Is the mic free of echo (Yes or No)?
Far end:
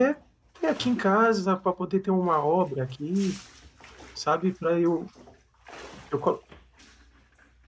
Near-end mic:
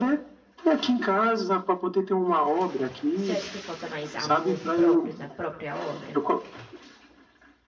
No